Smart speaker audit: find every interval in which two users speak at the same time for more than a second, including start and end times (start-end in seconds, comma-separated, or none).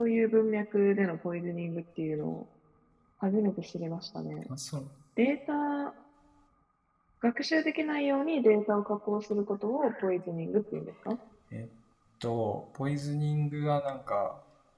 none